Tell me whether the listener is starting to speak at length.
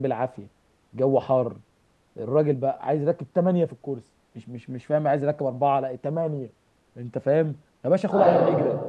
No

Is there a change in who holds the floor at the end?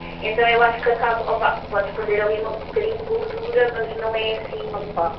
Yes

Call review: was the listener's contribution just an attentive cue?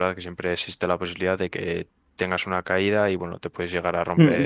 No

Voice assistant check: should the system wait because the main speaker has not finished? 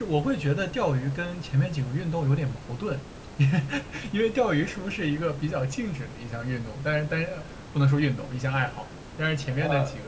Yes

